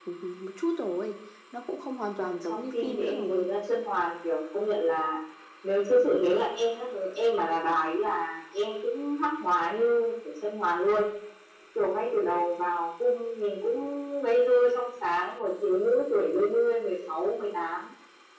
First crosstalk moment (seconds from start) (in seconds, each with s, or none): 2.2 s